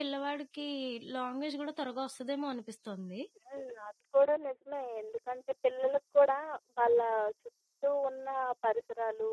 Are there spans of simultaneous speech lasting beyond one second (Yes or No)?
No